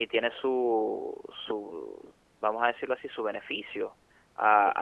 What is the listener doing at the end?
listening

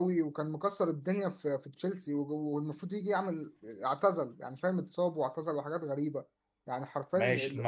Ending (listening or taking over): taking over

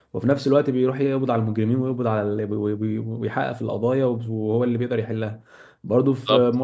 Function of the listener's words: listening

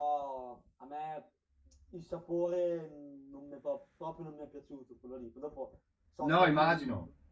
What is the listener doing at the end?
taking over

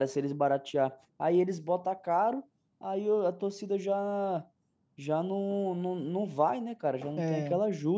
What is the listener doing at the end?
taking over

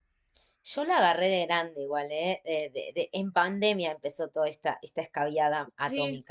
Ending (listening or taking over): taking over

